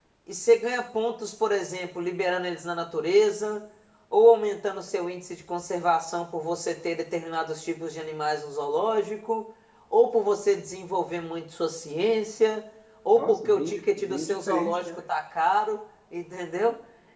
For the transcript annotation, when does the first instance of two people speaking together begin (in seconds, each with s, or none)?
13.2 s